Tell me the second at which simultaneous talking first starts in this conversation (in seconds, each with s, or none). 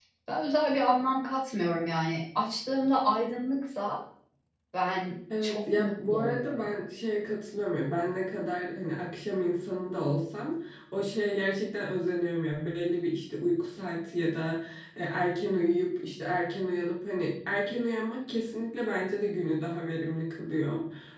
5.4 s